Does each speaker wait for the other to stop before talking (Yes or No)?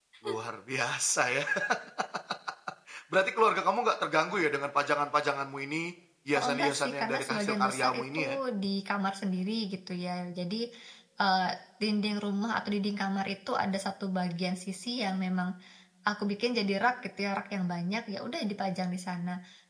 No